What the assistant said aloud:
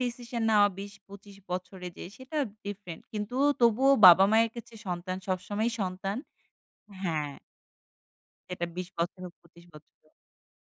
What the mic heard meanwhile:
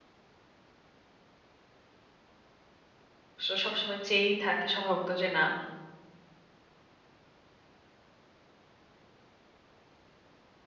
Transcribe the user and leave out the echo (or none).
স সবসময় চেয়েই থাকে স্বভাবত যে না